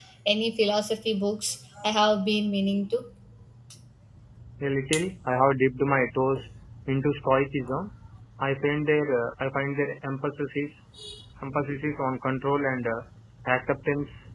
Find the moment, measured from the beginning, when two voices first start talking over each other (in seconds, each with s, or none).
none